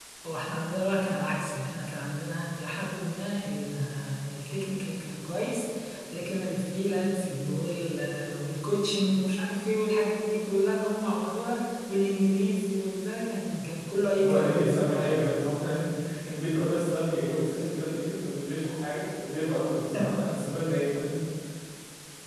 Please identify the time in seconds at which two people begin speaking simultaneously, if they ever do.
14.2 s

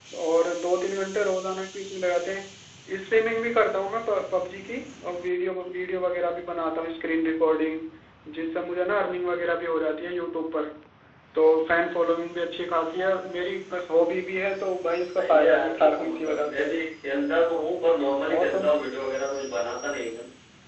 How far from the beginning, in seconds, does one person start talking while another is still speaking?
15.2 s

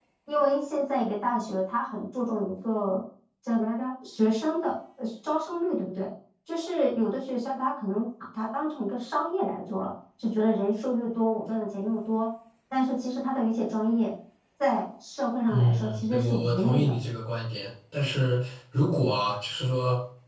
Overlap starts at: 15.5 s

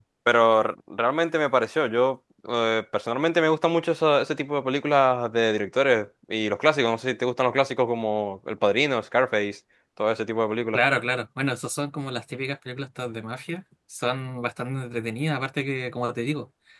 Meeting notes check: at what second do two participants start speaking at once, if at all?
none

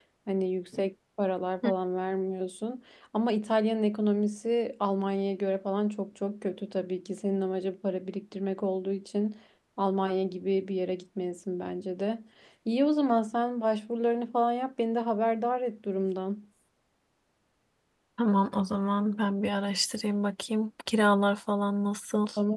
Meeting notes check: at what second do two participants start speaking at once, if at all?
none

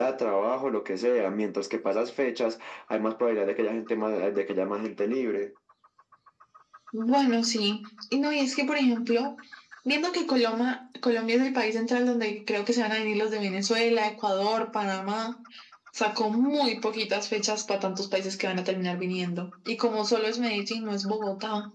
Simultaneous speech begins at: none

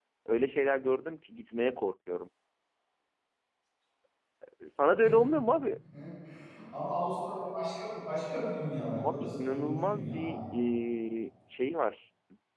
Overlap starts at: 9.0 s

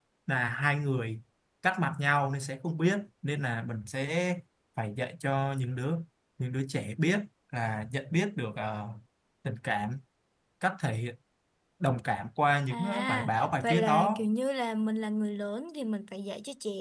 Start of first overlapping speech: 12.7 s

